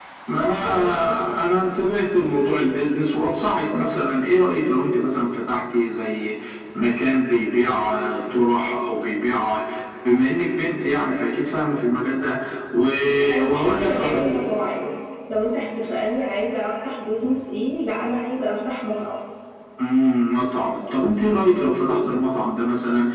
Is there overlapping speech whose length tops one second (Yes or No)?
Yes